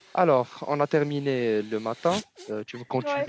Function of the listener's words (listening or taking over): listening